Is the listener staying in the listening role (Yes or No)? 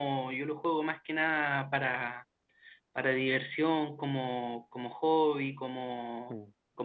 Yes